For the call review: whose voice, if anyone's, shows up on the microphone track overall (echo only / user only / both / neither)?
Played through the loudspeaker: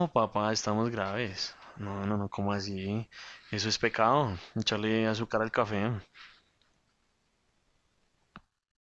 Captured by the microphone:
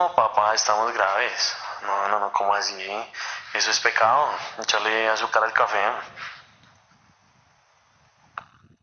echo only